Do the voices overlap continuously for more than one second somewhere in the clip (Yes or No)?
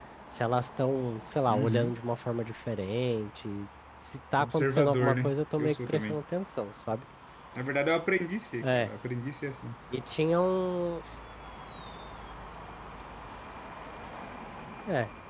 Yes